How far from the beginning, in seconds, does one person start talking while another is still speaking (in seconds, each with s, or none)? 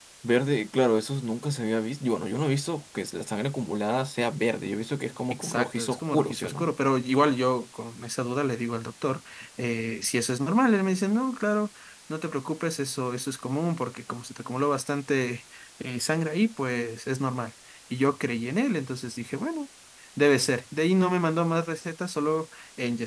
5.3 s